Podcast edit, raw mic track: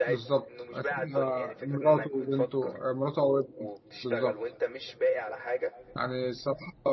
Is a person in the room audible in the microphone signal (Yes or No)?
Yes